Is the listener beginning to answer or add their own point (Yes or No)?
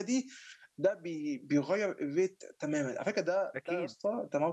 No